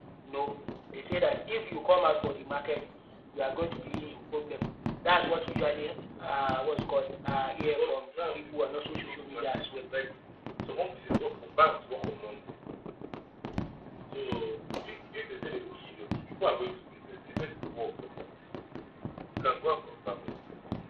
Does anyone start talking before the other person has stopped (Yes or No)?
Yes